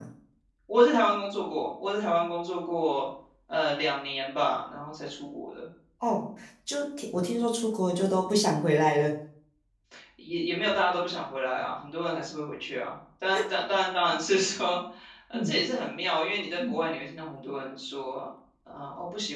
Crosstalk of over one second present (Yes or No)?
No